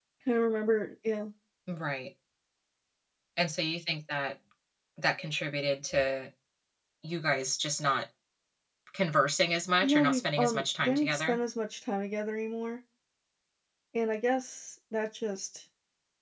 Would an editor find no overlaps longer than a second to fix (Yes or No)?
No